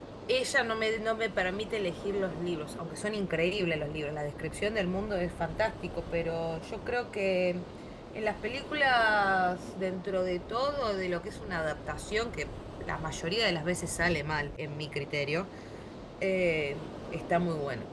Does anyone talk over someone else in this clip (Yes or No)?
No